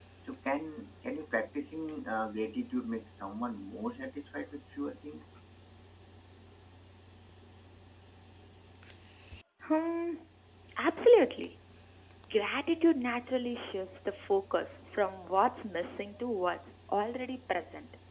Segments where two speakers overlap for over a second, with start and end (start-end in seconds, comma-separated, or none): none